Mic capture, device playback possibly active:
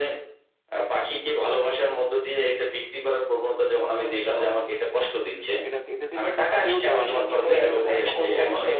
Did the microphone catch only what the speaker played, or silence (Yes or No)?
No